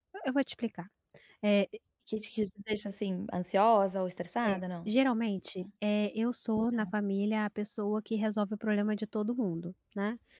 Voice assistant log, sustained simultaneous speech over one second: none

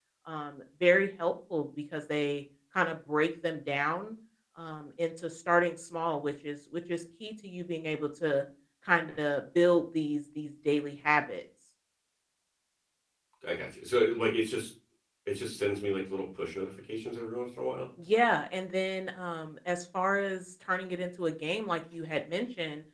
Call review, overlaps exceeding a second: none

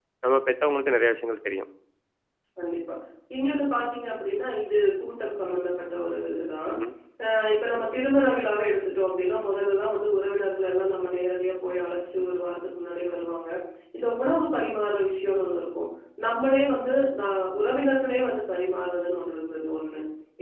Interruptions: none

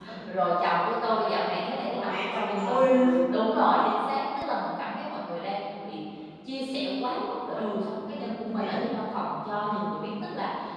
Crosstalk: present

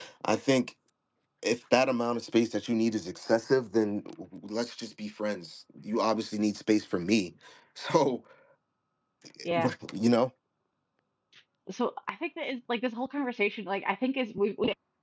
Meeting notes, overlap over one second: none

